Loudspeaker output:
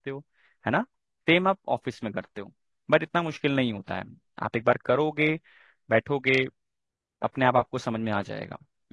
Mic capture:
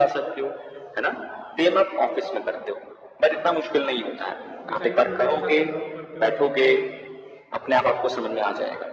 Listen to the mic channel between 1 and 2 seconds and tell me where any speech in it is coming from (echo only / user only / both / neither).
echo only